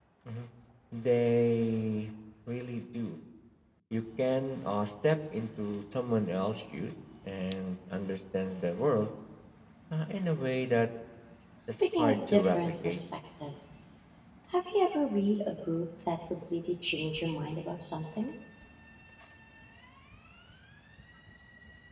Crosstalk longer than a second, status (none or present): present